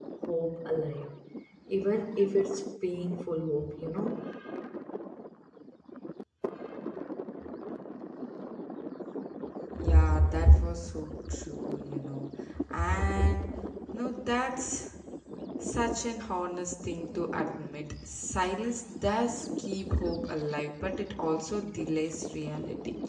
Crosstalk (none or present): none